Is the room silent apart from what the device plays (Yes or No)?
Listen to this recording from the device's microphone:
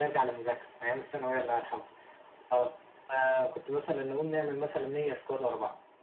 Yes